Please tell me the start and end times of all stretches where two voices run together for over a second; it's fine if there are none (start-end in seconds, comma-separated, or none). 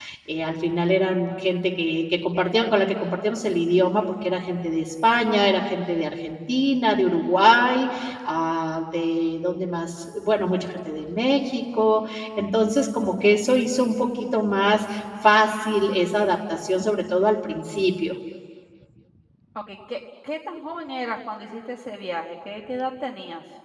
none